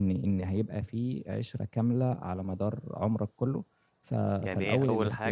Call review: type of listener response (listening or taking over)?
taking over